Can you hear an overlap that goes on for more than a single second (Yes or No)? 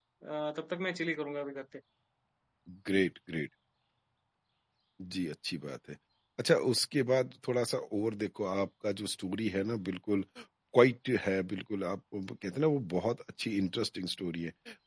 No